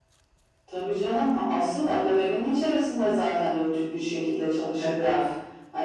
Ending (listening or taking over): listening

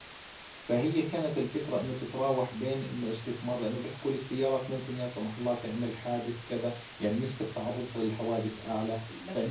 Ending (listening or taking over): taking over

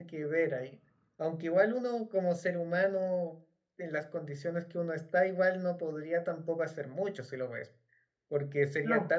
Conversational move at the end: listening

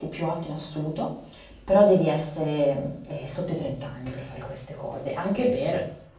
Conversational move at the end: listening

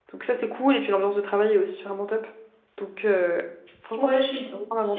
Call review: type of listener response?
taking over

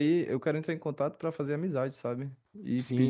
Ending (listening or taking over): taking over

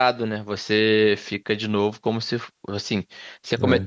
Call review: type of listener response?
listening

